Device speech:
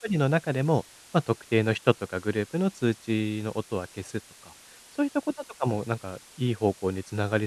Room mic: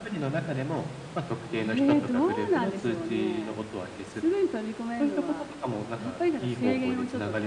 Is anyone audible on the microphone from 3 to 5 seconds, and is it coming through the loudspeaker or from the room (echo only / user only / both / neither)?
both